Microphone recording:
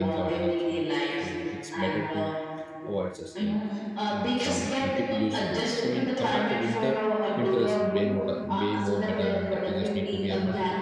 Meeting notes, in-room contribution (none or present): present